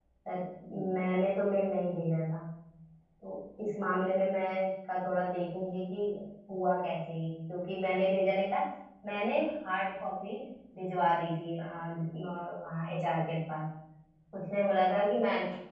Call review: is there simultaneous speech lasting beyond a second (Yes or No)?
No